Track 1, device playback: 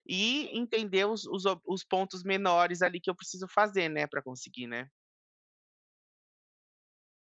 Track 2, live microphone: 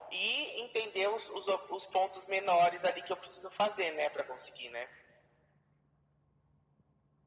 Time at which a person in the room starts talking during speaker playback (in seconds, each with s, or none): none